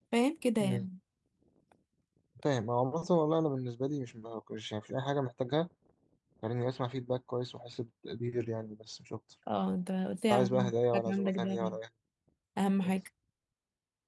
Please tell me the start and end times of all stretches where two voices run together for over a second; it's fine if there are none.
10.3-11.6

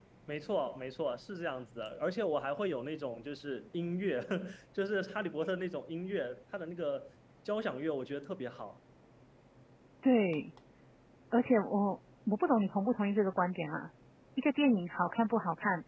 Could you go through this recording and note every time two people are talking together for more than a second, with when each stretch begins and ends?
none

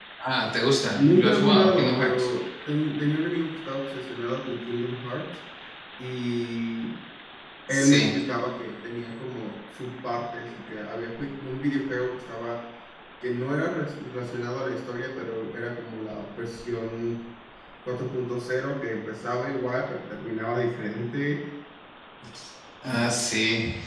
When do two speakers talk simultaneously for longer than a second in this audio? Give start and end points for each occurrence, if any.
0.9-2.3

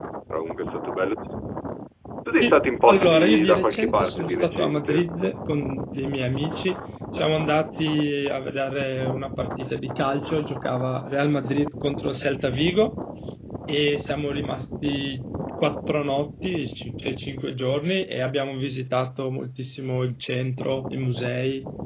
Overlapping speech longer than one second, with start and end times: 2.4-5.1

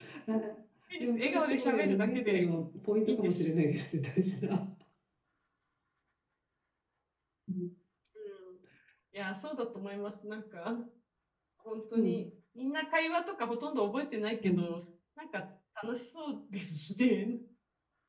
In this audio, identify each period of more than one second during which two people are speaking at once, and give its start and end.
1.0-2.4

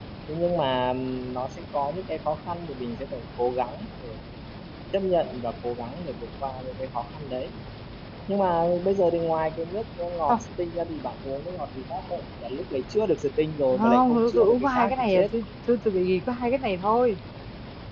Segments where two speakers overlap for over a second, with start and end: 13.7-15.3

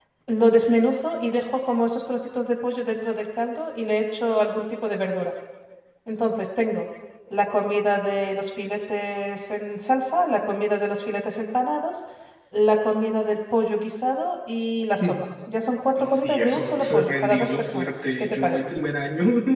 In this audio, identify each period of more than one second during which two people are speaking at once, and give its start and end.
16.0-18.6

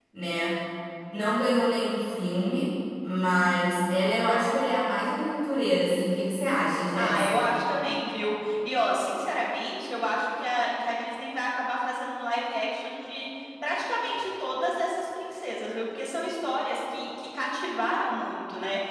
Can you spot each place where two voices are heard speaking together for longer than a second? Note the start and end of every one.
none

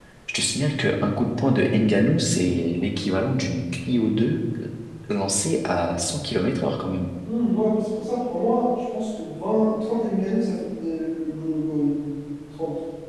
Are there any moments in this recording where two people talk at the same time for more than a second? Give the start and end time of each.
none

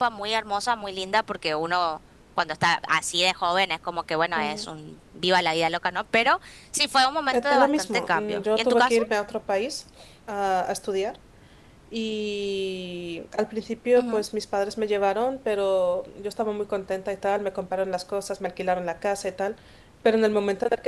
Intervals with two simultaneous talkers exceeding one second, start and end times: 7.3-9.0

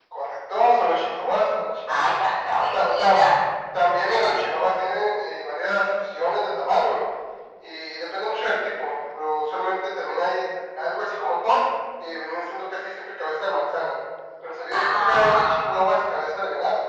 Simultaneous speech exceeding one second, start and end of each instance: 14.7-15.9

